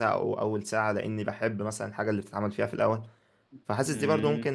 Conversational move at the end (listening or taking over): listening